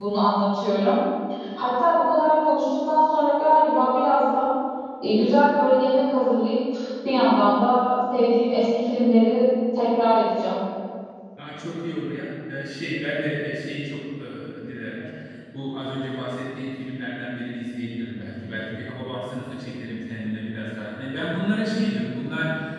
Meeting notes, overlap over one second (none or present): none